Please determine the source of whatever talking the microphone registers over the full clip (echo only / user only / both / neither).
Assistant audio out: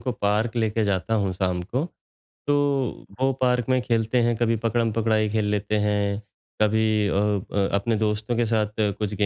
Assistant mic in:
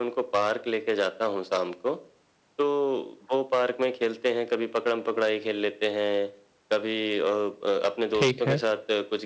both